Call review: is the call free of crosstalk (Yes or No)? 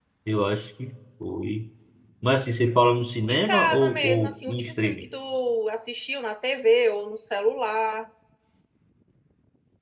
No